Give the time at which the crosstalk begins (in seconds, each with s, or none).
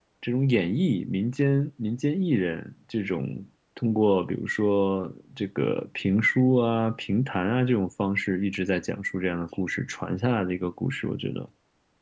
none